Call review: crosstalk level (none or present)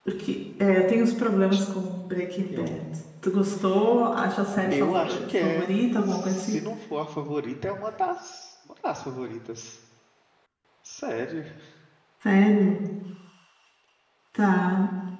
present